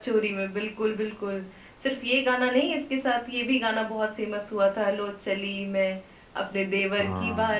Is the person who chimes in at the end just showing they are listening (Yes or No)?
Yes